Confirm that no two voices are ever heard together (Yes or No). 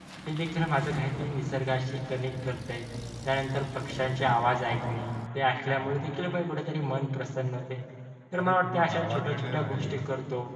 No